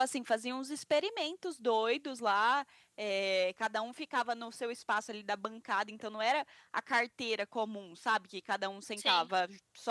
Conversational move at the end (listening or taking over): listening